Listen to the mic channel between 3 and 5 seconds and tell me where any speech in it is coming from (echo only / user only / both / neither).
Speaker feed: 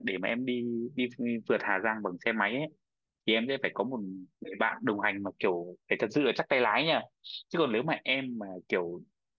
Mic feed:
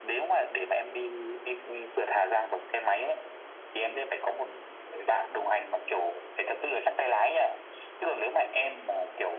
echo only